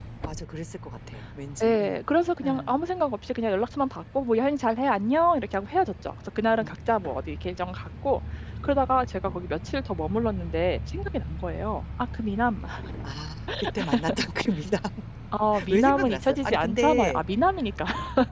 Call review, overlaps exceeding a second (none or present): present